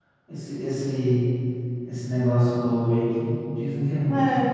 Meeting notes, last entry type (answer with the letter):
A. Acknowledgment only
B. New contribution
B